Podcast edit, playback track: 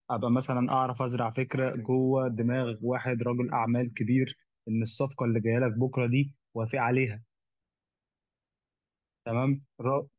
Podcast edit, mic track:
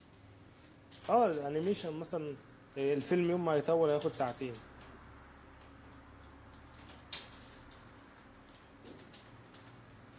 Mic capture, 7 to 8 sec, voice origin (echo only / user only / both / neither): neither